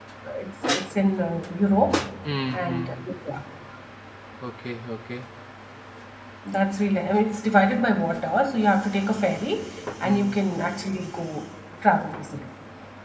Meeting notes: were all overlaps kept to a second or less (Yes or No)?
Yes